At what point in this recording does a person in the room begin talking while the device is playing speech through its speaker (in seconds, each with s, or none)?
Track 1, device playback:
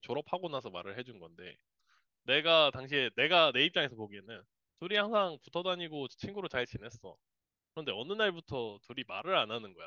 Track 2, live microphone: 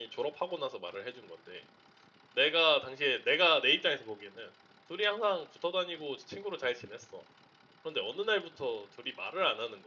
none